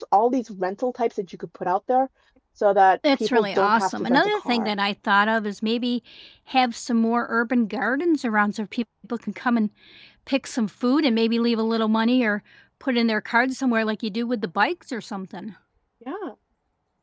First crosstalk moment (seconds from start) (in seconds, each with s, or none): 3.1 s